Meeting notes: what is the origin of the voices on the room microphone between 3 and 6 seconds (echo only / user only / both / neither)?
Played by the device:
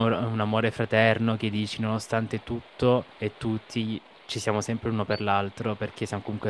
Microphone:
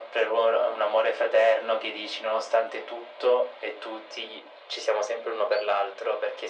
echo only